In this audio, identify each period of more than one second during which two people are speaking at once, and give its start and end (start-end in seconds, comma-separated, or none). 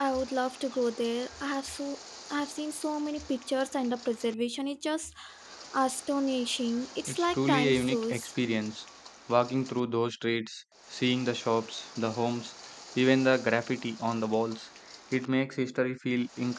7.1-8.3